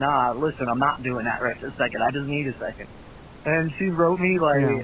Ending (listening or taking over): listening